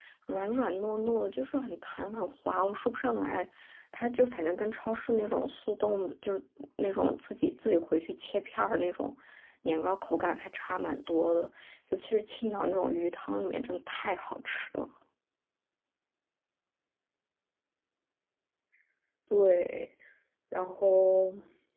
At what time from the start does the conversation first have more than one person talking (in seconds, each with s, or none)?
none